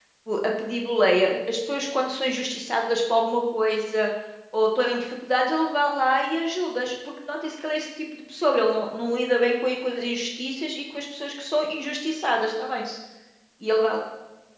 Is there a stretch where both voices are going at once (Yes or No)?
No